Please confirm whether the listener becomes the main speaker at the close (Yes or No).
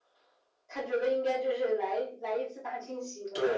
Yes